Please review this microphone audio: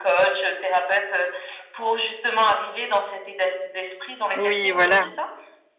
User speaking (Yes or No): Yes